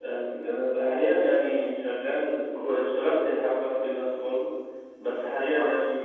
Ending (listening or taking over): listening